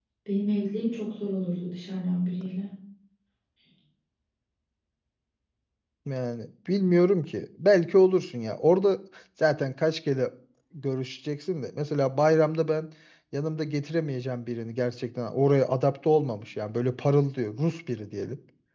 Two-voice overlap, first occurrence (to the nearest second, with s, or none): none